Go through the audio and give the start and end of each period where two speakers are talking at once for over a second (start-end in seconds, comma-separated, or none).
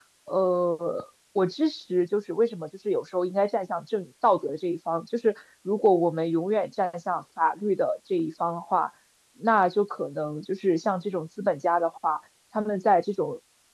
none